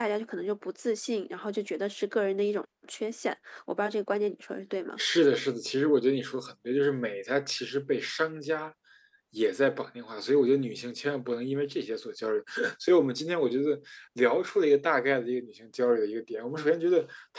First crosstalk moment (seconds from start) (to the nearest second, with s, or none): none